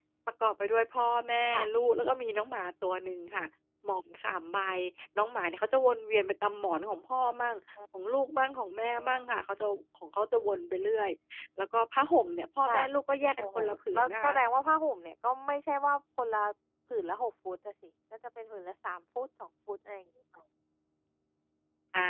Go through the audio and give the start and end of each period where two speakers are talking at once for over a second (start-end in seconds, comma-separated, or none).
none